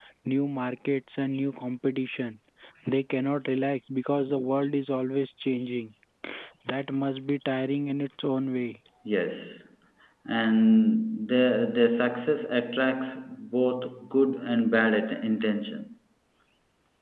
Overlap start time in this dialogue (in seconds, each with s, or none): none